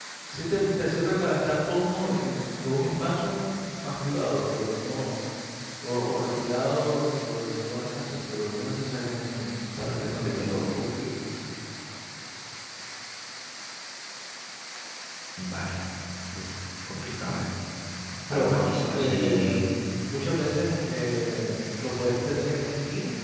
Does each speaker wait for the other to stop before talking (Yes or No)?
No